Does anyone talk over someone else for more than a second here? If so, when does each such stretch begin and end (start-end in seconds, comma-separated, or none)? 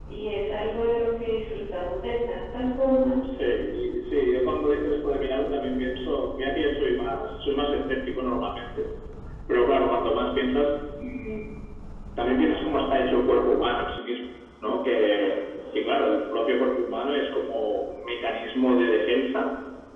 none